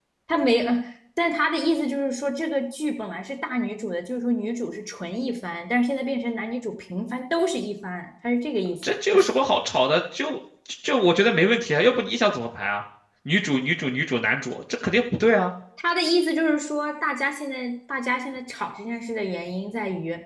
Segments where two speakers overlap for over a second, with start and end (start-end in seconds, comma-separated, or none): none